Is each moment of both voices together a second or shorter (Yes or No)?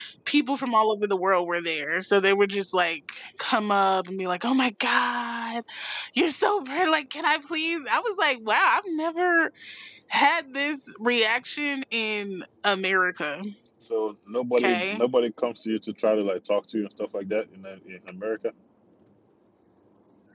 Yes